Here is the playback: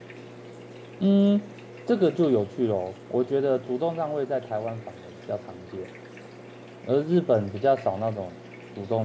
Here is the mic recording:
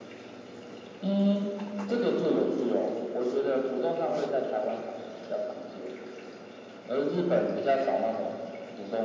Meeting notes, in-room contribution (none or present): none